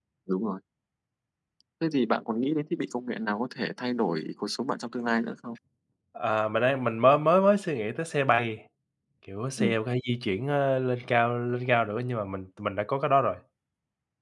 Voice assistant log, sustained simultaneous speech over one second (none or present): none